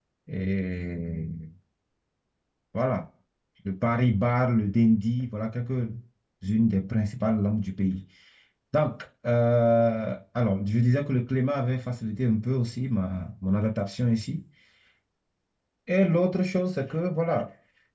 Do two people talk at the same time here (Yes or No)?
No